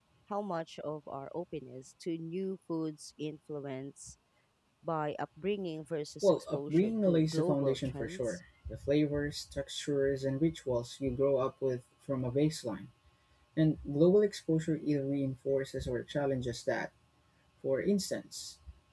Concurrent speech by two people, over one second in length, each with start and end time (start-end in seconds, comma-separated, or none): 6.2-8.4